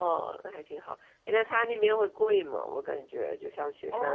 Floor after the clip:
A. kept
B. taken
B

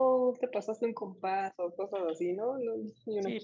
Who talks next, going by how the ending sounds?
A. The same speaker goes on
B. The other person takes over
B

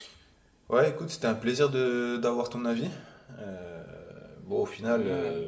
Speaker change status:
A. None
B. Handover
A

